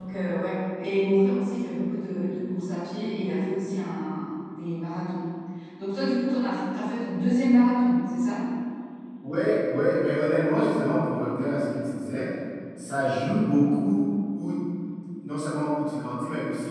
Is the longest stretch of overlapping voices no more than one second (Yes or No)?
Yes